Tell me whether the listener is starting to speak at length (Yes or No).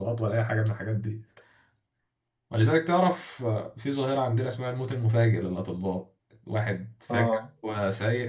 No